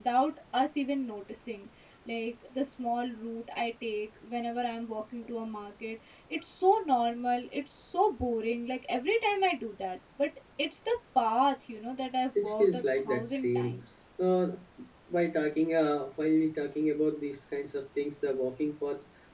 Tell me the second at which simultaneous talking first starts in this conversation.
12 s

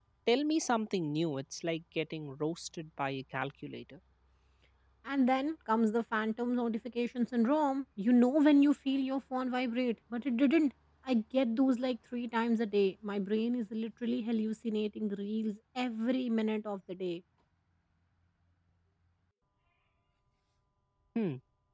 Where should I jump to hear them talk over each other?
none

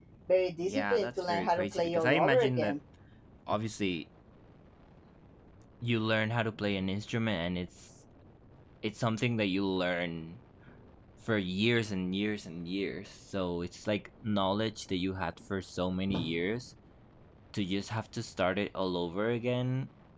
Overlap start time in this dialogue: 1 s

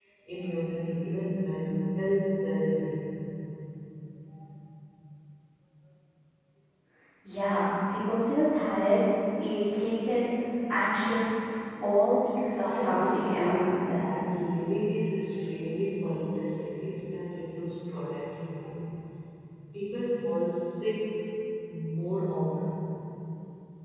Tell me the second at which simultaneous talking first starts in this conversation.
13 s

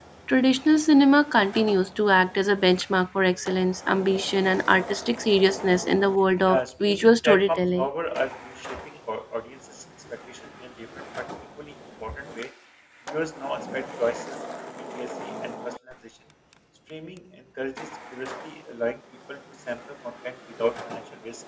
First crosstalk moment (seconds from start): 6 s

